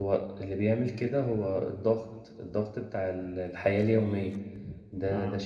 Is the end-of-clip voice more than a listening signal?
No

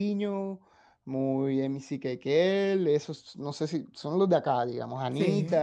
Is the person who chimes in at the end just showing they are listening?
Yes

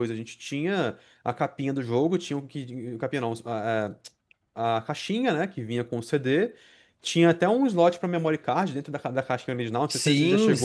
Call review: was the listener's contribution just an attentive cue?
No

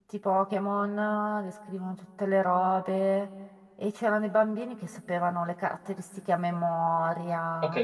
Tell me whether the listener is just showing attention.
No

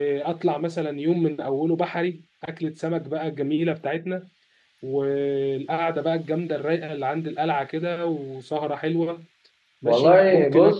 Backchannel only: No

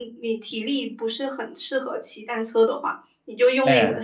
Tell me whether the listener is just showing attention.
Yes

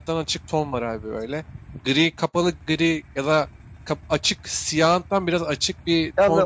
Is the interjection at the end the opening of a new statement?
Yes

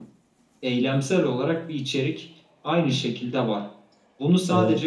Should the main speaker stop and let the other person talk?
No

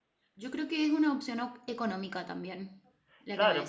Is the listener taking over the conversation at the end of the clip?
Yes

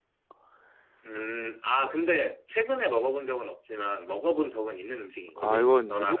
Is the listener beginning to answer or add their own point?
Yes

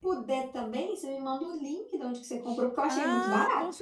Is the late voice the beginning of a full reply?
Yes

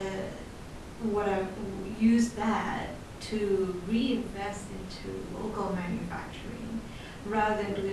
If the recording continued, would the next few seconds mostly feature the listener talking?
No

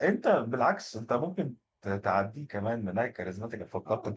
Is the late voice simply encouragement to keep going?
No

